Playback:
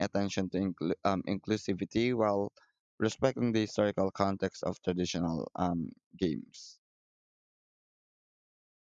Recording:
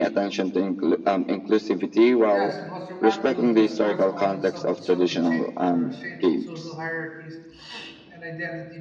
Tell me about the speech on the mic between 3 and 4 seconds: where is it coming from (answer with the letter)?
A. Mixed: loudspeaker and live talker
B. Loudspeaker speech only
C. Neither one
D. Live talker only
A